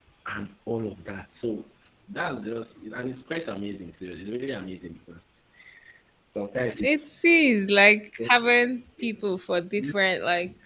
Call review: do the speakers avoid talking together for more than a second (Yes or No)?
Yes